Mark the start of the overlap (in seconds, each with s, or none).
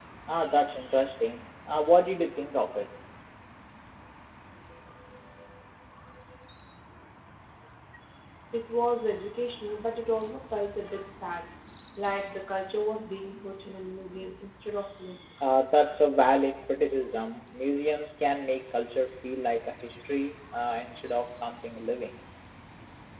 none